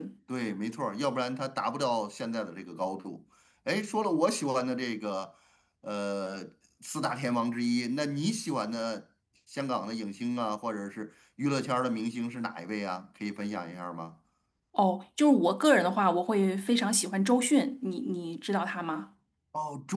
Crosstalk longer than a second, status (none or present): none